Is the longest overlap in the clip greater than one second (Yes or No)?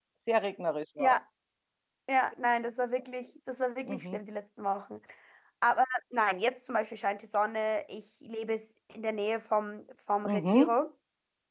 No